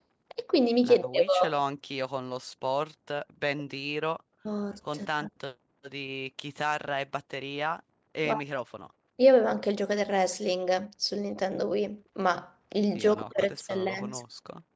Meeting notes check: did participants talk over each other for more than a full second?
Yes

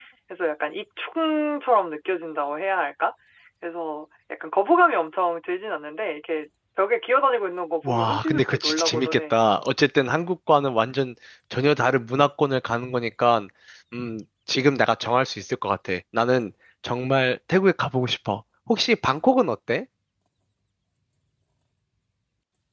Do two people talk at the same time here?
Yes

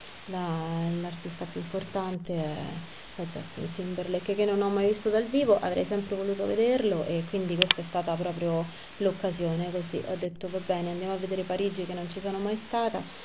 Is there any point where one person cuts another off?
No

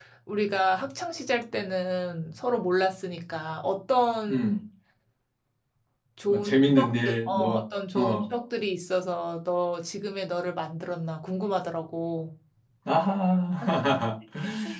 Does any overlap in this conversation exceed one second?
Yes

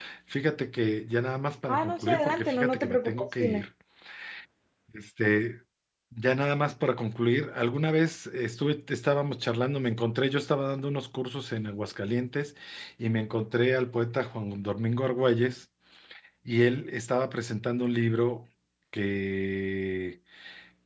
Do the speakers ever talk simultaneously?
Yes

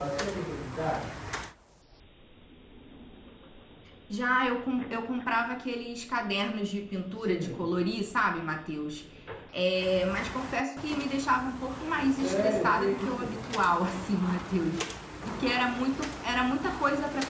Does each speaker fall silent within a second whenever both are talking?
No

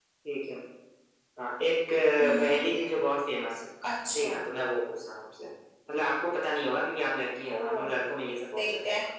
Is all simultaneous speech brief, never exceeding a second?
Yes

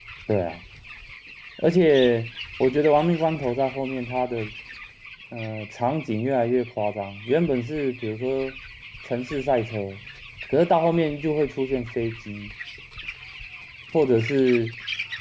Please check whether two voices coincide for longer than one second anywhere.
No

